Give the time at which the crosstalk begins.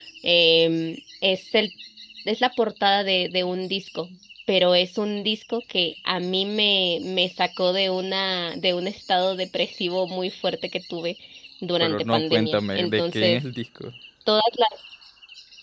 11.8 s

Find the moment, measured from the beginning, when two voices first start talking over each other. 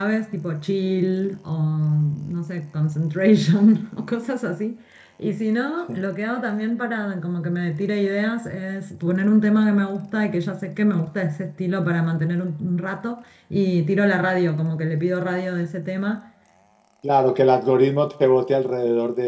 none

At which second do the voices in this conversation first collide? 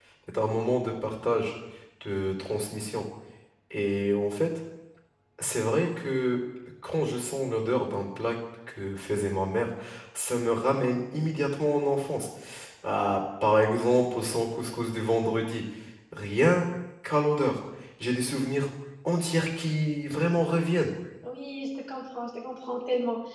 none

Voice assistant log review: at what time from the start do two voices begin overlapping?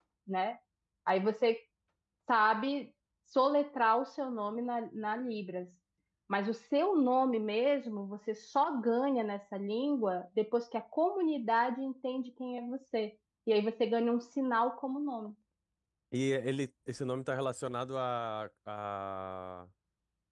none

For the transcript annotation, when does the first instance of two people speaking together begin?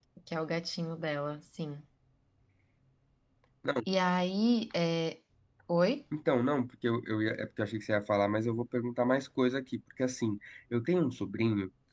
none

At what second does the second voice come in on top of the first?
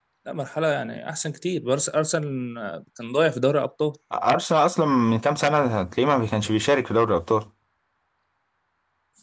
none

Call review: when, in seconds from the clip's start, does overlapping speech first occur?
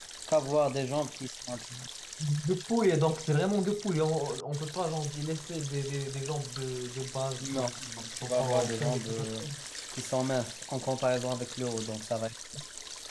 7.4 s

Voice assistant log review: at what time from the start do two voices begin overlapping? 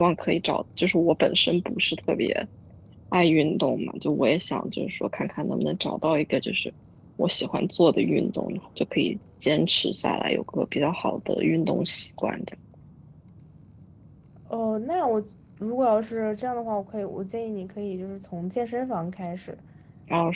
none

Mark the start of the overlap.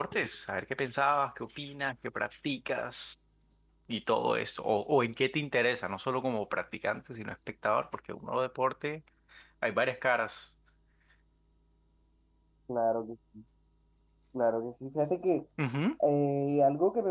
none

